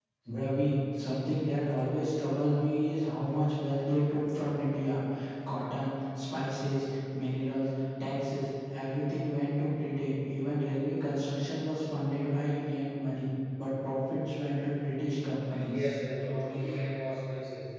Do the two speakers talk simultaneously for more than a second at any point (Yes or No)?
No